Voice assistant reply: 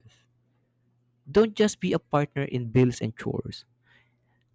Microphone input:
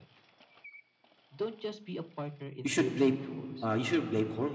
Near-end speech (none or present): present